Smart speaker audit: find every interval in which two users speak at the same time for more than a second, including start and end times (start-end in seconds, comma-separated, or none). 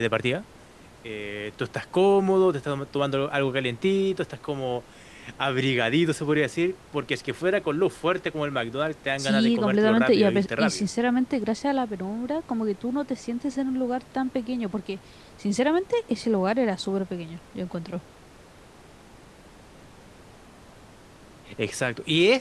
9.2-10.9